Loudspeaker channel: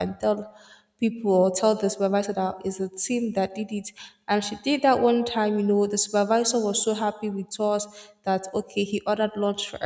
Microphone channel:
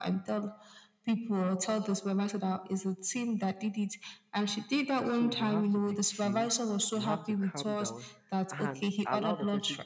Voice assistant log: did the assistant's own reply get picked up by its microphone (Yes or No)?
Yes